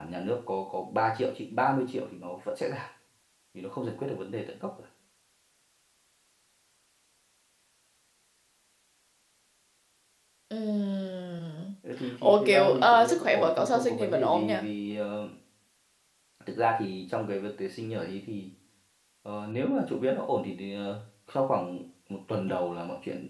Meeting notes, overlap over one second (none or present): present